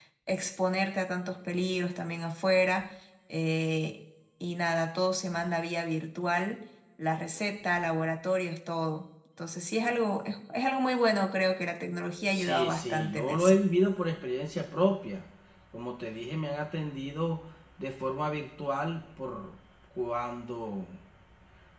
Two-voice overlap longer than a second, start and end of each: 12.3-13.6

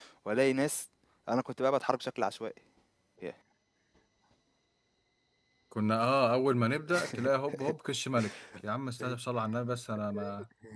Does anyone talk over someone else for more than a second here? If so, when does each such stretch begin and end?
none

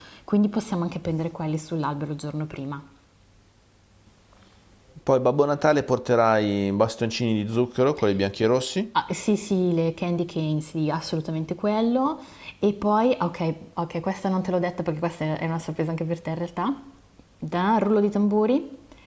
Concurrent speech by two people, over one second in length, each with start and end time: none

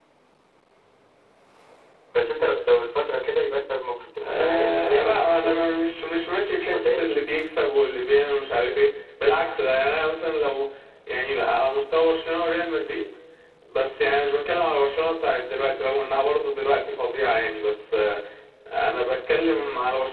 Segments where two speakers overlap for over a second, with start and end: 4.3-5.6

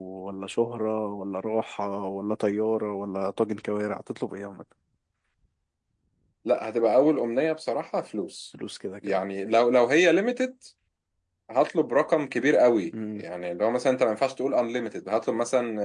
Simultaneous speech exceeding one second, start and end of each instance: none

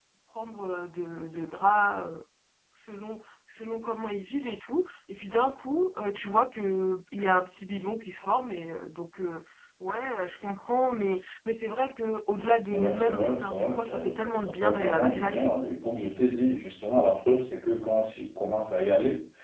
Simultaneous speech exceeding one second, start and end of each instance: 12.7-15.8

